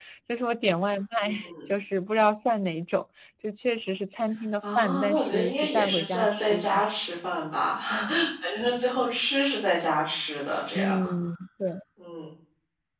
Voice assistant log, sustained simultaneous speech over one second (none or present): present